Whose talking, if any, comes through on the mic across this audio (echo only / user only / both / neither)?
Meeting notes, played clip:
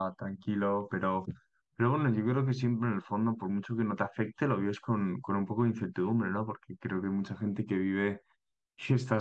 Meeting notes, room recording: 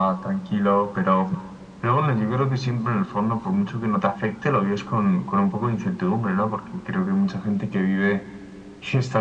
both